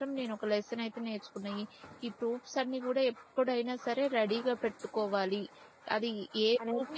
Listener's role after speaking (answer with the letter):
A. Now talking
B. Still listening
B